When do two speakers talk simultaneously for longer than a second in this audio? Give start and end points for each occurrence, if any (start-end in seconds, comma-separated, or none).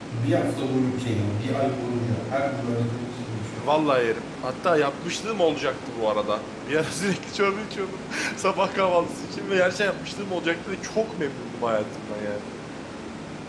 none